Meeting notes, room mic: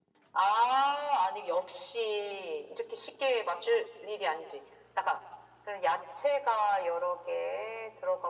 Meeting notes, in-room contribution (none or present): none